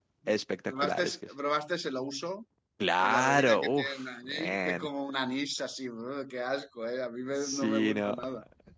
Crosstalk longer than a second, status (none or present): present